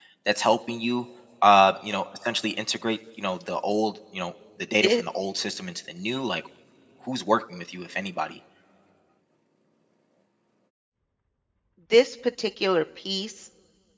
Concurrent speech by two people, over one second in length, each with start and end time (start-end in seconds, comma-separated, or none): none